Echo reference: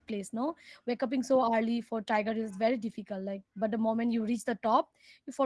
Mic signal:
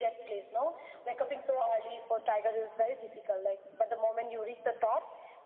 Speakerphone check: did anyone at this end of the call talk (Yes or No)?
No